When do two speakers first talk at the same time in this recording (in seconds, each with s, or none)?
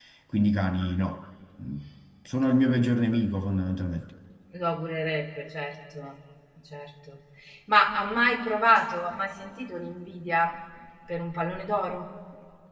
none